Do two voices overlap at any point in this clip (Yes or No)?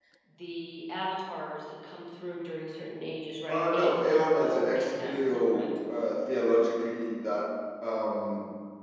Yes